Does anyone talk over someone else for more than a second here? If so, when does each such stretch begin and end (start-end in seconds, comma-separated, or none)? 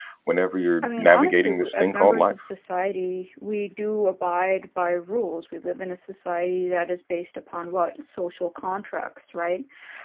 0.8-2.4